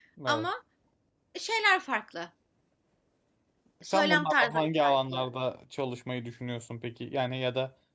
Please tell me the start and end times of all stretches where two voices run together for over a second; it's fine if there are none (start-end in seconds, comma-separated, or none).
3.8-5.3